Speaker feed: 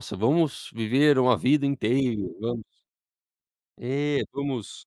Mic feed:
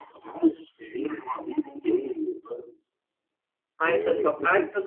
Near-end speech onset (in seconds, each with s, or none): 3.8 s